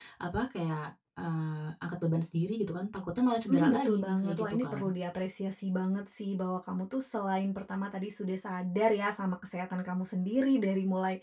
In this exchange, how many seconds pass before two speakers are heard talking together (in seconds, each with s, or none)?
3.5 s